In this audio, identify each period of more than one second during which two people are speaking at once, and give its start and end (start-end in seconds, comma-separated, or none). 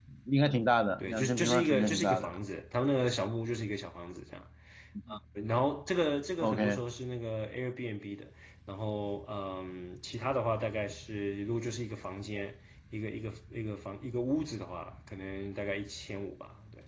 1.0-2.4